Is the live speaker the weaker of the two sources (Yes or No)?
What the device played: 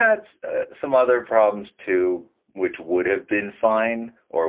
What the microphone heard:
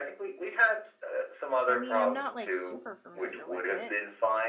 Yes